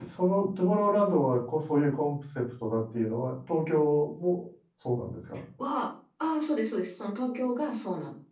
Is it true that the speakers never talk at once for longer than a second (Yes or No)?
Yes